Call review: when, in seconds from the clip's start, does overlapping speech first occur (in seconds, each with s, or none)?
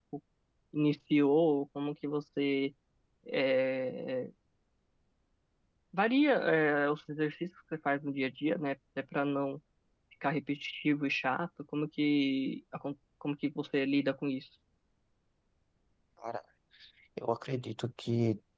none